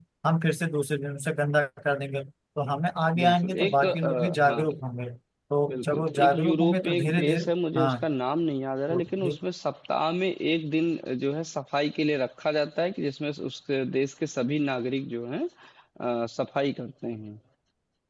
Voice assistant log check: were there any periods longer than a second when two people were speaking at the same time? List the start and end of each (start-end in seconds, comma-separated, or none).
3.2-4.6, 5.7-8.0